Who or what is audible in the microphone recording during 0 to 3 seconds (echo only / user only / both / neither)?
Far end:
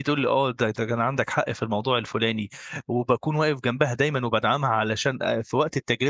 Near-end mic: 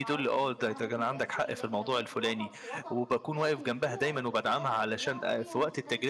both